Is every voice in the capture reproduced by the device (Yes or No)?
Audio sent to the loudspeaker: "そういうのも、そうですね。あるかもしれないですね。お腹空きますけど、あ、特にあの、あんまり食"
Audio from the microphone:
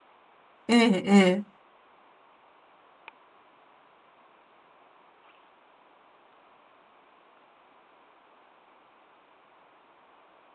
No